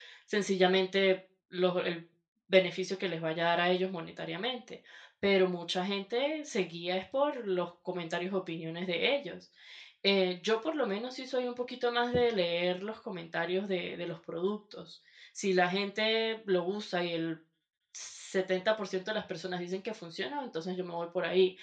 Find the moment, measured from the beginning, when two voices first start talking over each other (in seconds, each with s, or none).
none